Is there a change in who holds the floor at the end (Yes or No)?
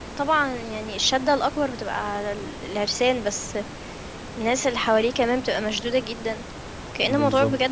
No